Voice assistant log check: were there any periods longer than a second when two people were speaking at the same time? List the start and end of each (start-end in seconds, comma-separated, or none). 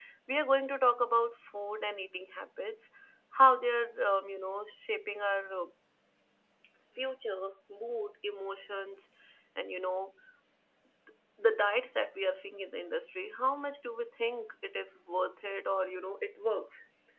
none